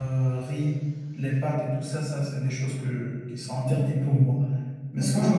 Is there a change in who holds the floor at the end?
No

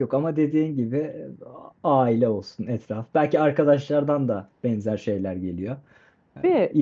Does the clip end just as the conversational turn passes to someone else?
No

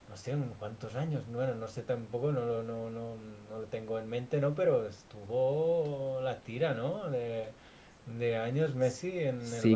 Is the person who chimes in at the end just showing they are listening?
No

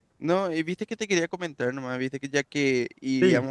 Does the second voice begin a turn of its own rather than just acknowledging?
No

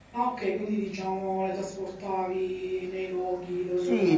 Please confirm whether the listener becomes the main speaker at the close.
Yes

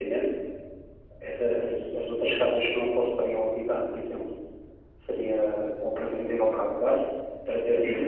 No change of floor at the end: No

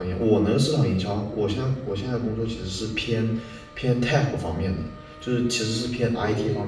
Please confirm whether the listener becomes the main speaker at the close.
No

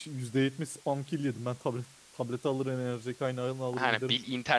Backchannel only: No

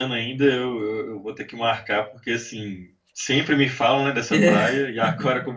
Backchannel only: Yes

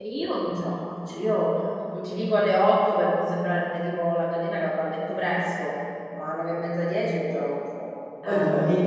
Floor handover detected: Yes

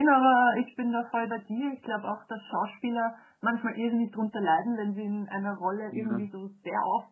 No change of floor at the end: Yes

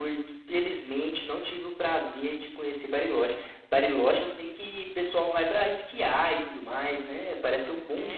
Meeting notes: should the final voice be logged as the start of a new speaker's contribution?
Yes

